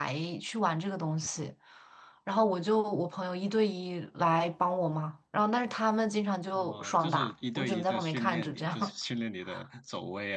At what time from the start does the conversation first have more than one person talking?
6.5 s

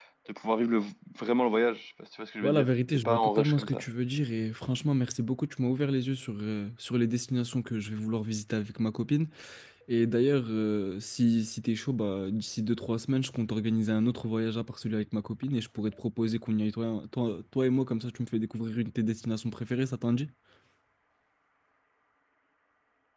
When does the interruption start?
2.4 s

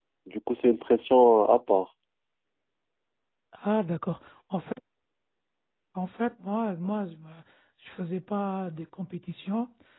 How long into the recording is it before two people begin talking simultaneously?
none

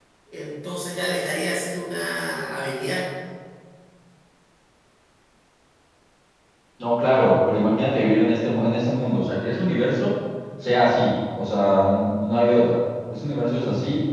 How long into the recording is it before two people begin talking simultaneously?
none

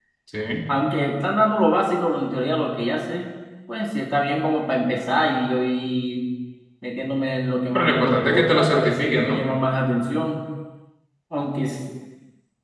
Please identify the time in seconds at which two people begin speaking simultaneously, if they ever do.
7.7 s

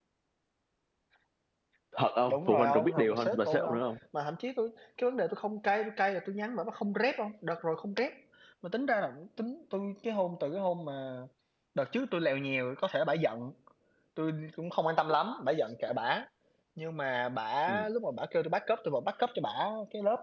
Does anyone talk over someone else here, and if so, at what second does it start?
2.3 s

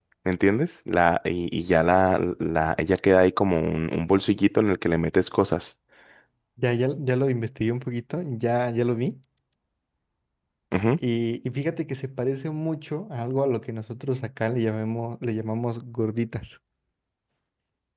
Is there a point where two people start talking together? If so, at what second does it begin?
none

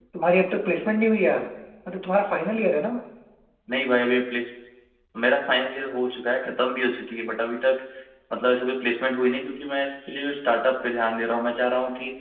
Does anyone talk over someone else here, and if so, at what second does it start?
none

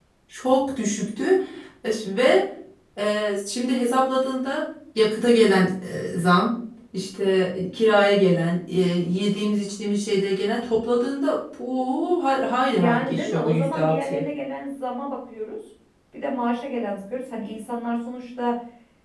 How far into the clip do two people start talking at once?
12.7 s

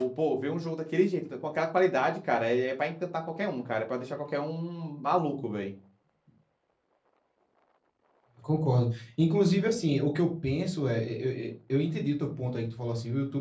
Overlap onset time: none

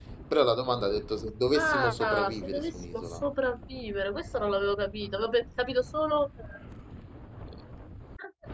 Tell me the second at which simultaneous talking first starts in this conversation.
1.5 s

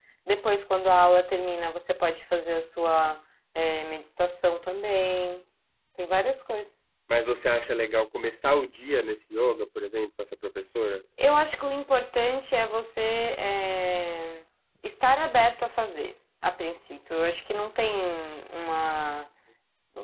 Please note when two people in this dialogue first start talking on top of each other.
none

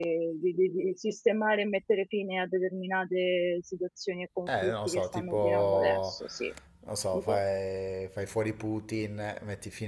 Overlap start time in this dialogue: 4.5 s

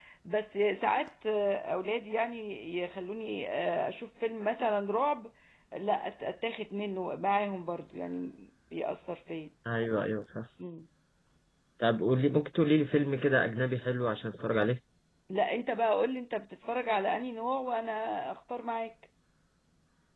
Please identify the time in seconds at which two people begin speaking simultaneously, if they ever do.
none

